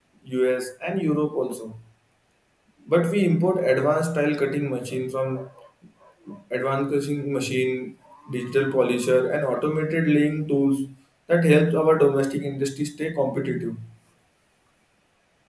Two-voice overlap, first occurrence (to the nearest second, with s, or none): none